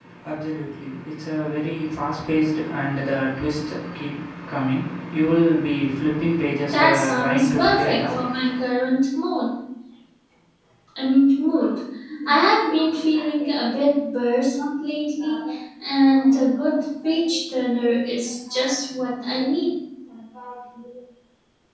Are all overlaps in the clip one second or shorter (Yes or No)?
No